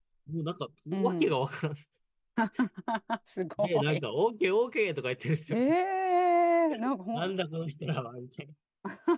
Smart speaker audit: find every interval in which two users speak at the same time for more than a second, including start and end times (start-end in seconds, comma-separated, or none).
none